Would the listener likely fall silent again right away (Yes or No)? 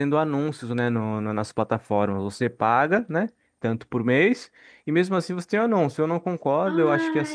No